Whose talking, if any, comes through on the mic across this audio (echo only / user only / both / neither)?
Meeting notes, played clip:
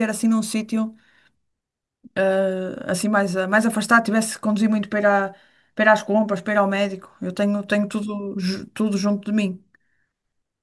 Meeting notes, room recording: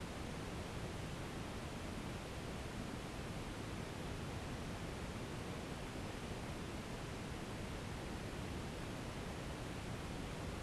neither